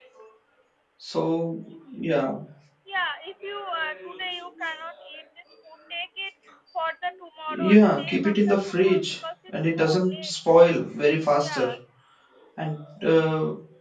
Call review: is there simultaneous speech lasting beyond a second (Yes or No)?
Yes